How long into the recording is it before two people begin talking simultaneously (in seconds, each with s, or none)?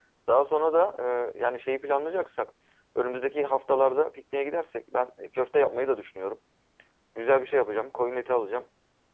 none